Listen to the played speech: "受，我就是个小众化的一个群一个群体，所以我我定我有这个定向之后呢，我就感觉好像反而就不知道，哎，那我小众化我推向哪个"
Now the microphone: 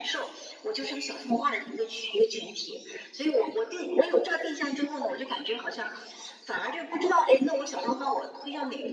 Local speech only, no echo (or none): none